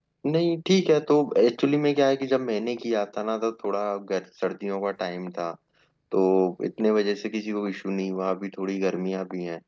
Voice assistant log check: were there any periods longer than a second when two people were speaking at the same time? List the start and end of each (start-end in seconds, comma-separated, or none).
none